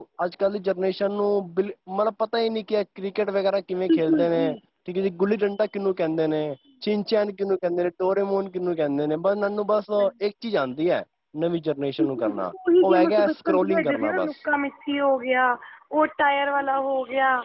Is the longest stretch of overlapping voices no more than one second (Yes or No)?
No